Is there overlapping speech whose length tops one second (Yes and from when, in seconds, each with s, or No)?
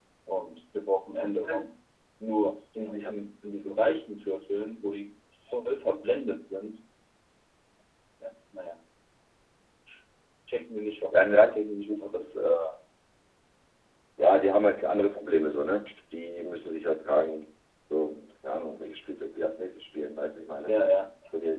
No